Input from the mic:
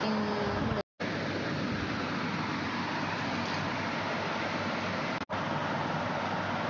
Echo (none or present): none